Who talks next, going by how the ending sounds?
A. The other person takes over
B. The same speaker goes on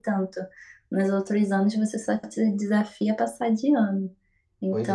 B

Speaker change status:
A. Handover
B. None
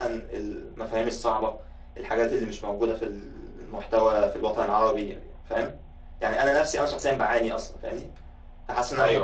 B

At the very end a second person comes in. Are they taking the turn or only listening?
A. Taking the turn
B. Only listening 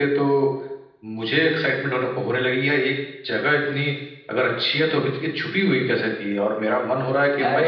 A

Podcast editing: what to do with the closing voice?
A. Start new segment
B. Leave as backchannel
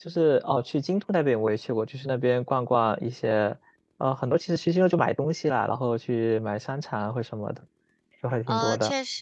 A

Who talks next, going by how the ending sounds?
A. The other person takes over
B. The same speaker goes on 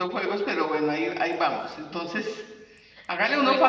B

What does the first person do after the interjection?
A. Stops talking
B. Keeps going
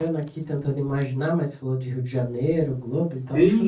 A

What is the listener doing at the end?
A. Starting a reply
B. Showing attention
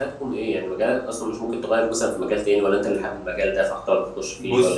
A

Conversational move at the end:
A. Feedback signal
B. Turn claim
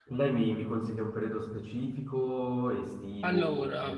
A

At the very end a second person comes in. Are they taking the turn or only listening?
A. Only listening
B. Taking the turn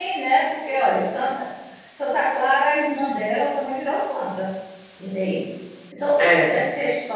A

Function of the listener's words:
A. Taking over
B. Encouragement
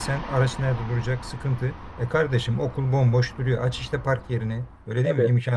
B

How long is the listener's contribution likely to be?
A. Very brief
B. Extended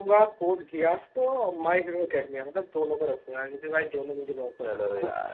B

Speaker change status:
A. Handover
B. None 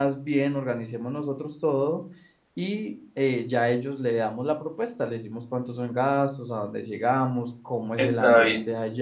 B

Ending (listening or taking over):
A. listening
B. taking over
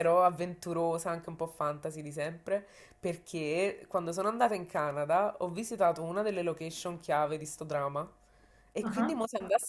A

